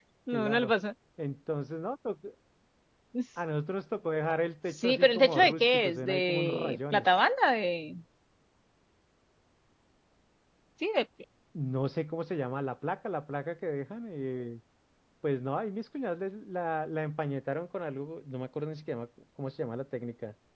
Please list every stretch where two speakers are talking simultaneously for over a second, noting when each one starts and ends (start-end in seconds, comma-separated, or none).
4.6-7.2